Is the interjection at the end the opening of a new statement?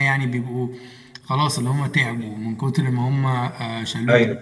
No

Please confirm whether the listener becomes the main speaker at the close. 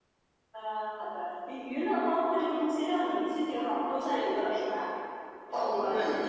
Yes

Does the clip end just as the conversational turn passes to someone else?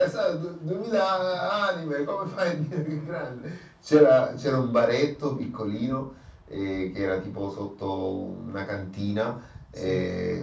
No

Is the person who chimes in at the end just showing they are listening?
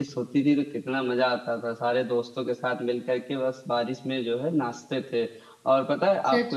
Yes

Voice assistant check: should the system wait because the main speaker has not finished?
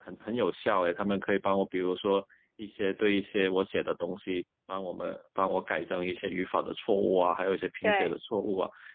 Yes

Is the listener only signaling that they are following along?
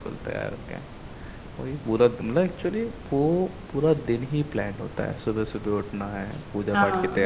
Yes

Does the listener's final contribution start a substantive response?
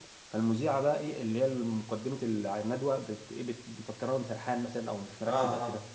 No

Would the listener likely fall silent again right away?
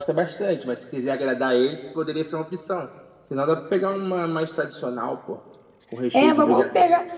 No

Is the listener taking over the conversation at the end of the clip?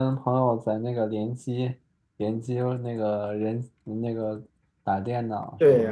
Yes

